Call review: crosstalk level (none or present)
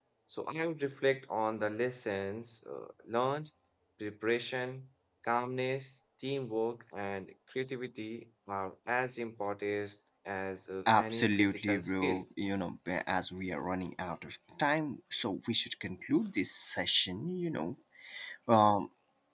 present